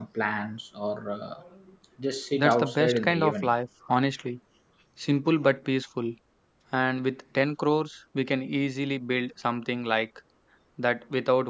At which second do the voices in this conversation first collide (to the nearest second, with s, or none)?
2 s